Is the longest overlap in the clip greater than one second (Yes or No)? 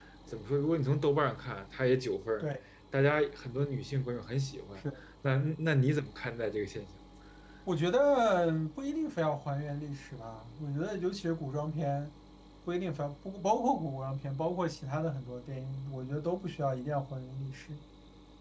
No